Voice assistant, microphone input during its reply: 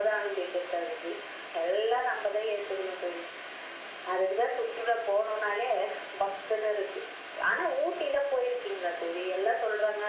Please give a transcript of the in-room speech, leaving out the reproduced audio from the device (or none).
none